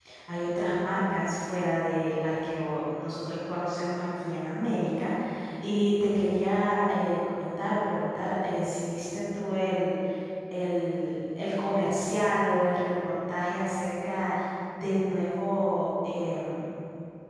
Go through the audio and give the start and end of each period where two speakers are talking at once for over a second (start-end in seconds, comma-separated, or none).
none